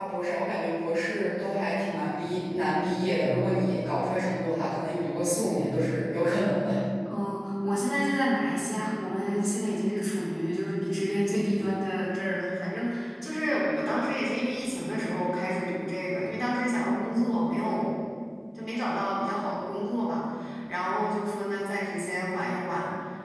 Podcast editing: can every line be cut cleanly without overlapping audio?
Yes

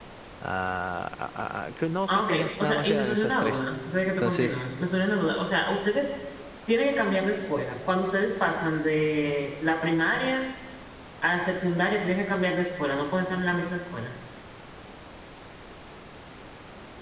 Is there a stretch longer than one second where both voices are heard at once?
Yes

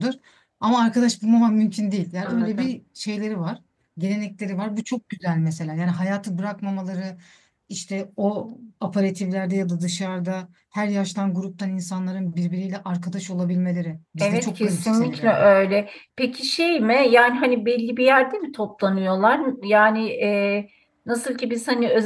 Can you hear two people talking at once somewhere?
Yes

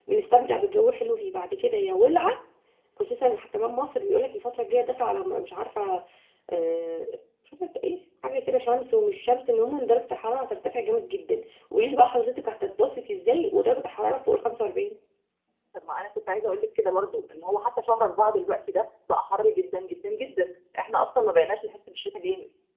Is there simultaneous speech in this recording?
No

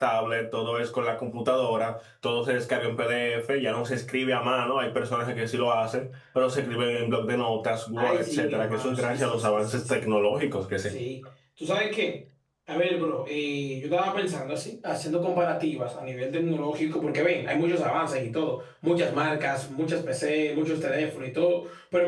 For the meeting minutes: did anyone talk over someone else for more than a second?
Yes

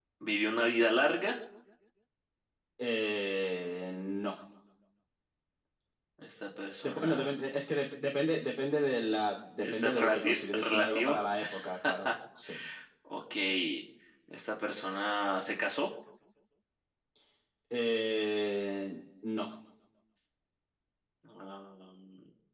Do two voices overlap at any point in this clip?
Yes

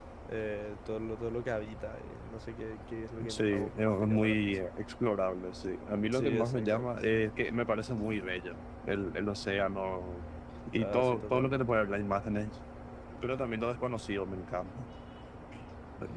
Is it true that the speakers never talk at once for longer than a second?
No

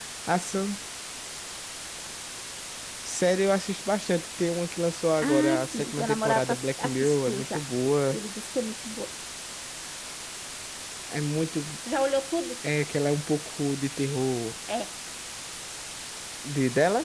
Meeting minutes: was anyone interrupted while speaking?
Yes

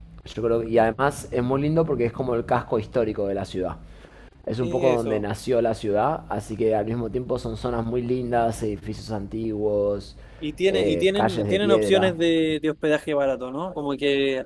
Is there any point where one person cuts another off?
Yes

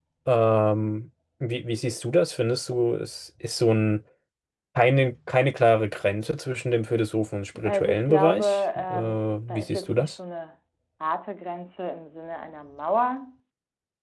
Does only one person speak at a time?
No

